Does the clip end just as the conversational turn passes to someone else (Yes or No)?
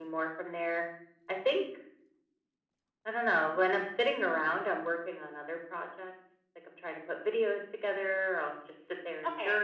No